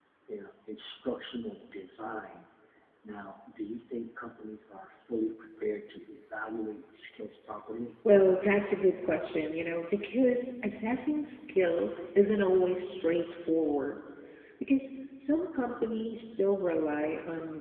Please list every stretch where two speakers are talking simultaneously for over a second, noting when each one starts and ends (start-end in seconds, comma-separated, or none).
none